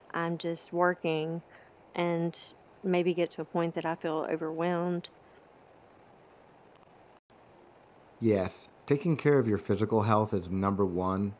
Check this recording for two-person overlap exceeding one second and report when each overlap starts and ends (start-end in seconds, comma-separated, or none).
none